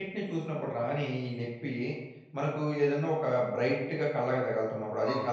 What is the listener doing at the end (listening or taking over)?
taking over